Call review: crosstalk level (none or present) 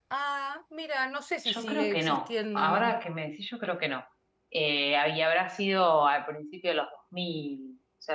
present